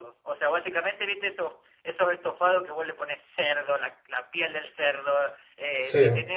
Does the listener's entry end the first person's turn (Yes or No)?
No